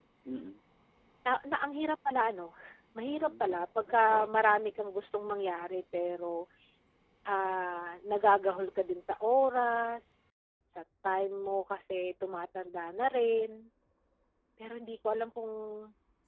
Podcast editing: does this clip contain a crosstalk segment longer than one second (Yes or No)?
Yes